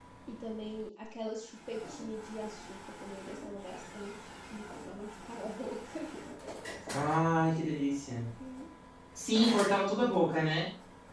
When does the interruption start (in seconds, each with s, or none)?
none